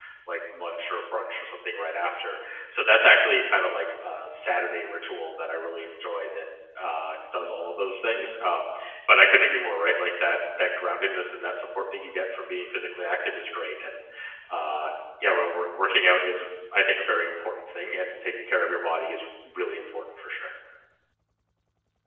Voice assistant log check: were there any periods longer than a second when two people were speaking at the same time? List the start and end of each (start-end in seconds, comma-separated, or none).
none